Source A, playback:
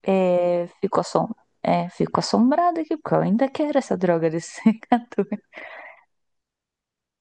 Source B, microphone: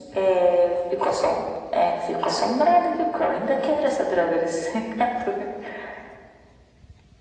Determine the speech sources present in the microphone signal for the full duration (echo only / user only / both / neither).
echo only